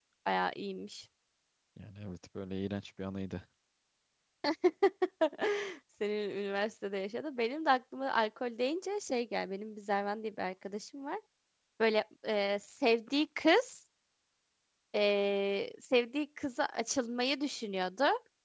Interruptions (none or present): none